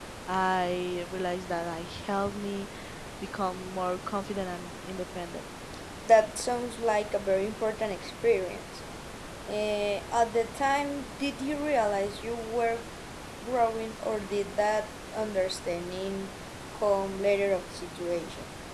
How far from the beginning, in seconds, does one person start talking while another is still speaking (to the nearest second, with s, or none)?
none